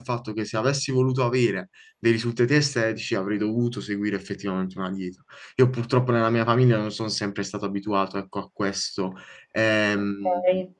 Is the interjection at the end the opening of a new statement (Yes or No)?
Yes